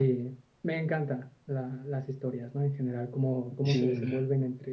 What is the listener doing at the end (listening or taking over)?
listening